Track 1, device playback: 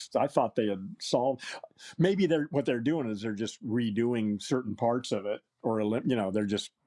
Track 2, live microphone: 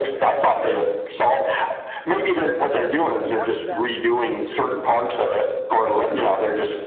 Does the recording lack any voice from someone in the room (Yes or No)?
No